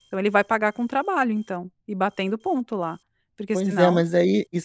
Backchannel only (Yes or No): No